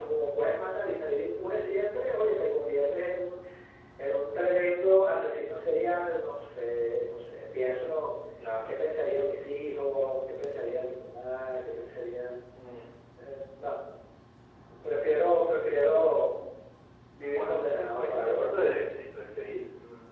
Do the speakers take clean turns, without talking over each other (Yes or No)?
No